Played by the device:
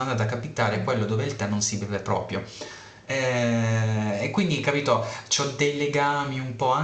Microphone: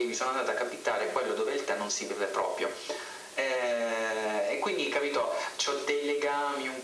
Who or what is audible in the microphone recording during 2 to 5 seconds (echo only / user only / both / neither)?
echo only